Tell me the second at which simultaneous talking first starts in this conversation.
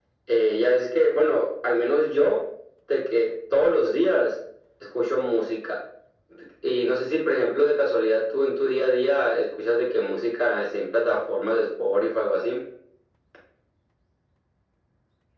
none

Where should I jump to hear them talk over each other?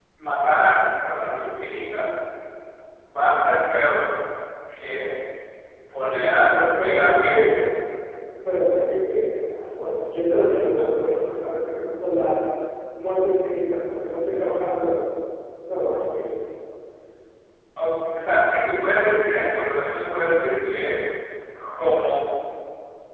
6.1 s

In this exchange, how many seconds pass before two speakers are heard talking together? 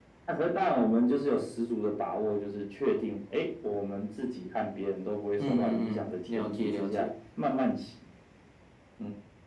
5.4 s

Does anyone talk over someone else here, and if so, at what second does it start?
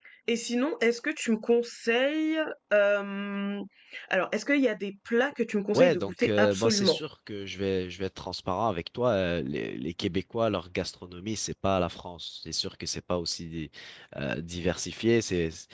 5.7 s

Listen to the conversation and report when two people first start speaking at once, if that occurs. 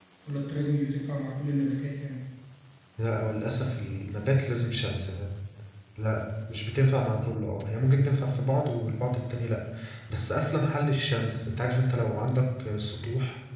none

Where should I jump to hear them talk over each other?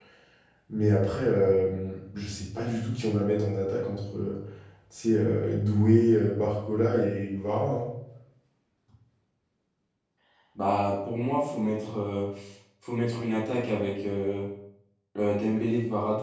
none

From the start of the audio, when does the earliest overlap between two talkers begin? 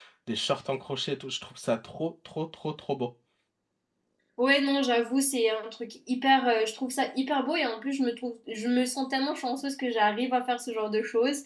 none

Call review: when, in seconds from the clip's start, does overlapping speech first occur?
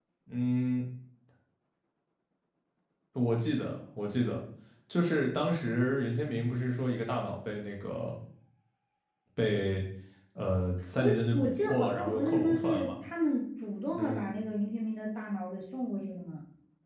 11.0 s

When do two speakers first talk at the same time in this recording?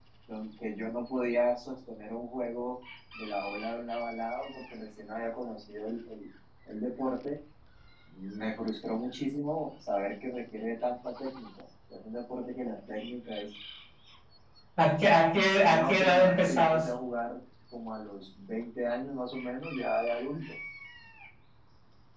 15.7 s

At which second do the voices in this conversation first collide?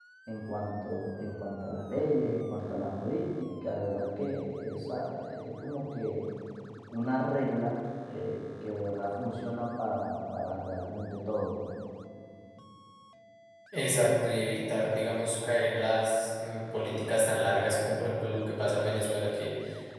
none

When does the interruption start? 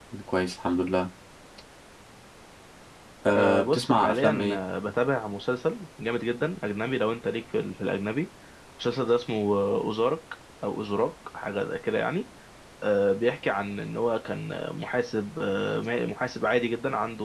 3.3 s

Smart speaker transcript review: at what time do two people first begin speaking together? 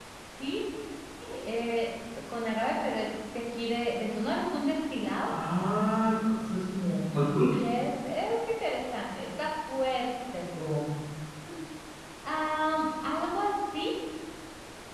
none

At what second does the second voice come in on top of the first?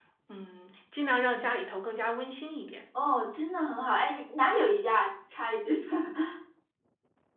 none

